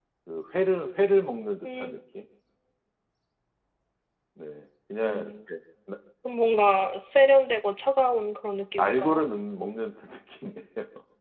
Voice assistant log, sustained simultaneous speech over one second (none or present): none